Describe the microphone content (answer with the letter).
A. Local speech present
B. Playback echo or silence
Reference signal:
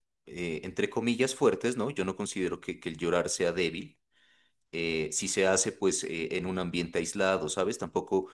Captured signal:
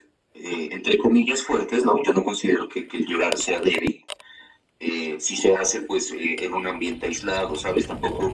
B